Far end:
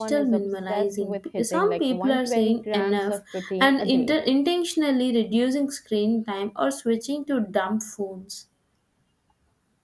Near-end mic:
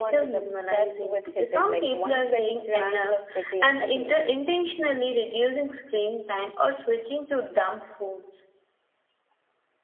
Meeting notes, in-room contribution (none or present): none